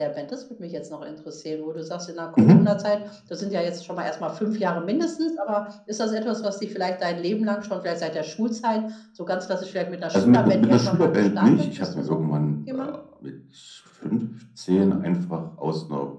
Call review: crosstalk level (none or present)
present